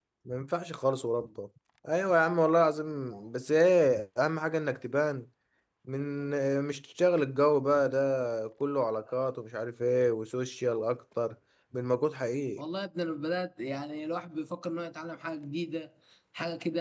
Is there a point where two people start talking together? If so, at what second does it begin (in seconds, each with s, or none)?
none